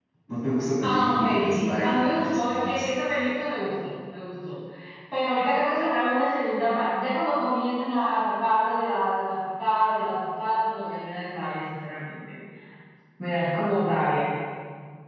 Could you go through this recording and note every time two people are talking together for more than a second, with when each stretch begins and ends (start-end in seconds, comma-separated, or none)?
0.8-2.9